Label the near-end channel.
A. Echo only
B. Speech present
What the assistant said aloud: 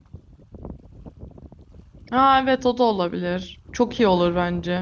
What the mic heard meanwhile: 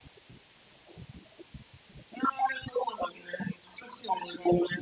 A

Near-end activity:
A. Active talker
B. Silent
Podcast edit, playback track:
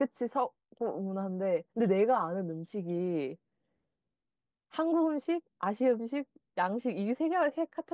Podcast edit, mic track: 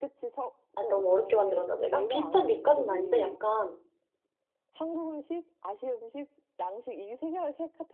A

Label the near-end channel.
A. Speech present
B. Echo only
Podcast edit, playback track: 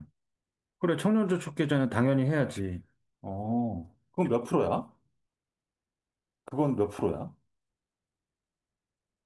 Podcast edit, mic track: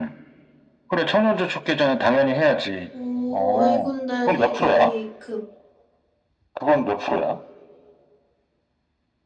A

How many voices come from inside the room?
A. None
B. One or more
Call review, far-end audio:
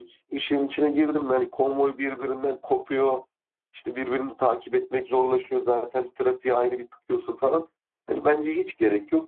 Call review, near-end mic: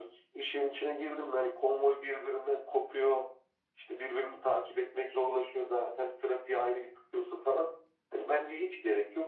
A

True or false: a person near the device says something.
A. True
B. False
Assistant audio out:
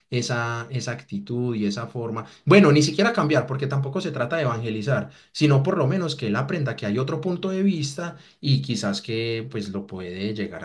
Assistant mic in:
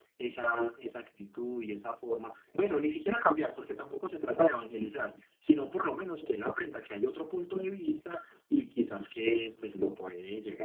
B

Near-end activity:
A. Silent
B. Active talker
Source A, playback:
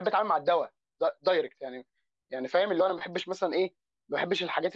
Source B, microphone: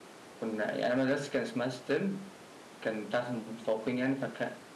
B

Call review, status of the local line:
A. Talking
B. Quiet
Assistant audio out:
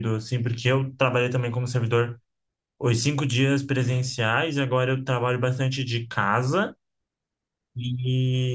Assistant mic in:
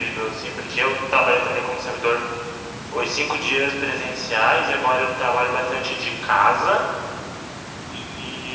B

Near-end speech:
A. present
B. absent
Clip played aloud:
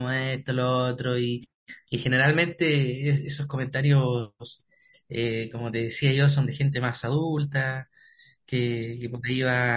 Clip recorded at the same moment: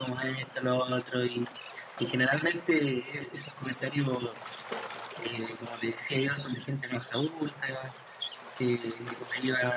B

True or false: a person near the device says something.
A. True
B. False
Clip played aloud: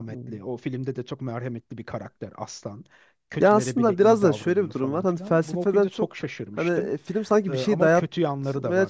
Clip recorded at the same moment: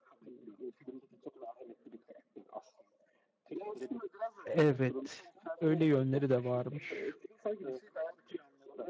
A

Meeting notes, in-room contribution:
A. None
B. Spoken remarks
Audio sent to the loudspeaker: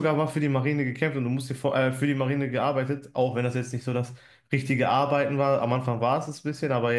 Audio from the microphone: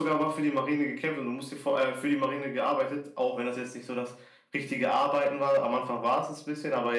A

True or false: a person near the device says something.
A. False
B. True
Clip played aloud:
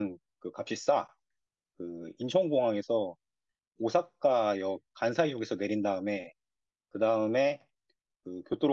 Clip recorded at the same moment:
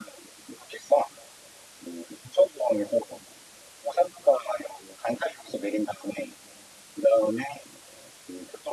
A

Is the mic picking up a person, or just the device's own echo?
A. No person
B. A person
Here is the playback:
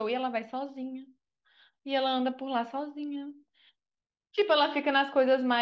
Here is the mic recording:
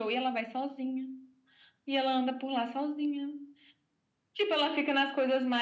A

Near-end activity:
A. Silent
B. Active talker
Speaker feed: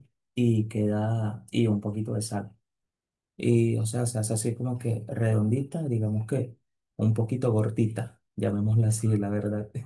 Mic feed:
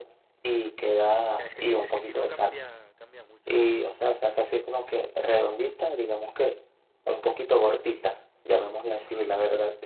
B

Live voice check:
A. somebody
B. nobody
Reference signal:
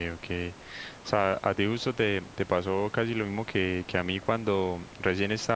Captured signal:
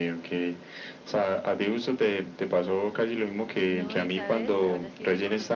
A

